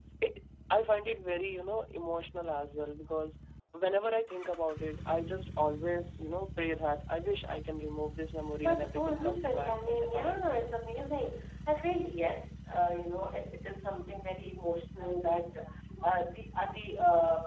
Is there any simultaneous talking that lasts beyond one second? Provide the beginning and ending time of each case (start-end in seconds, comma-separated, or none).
8.6-10.5